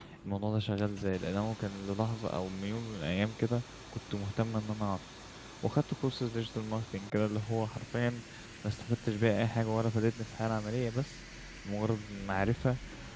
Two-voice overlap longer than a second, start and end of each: none

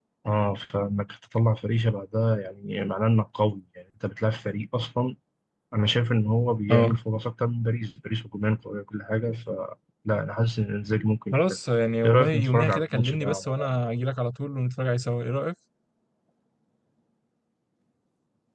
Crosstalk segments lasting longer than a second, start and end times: 12.0-13.7

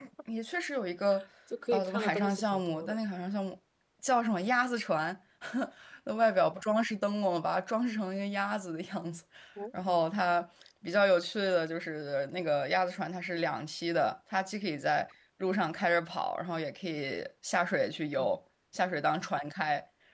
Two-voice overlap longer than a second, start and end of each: 1.7-3.0

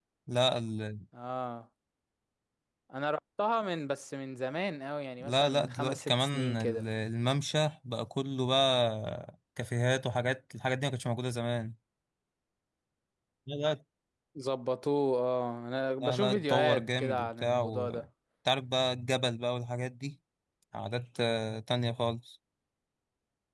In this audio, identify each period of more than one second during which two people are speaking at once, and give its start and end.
5.2-6.8, 16.0-18.0

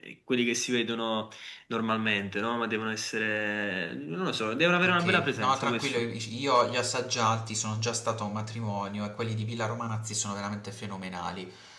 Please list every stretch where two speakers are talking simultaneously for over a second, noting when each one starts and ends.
4.8-6.0

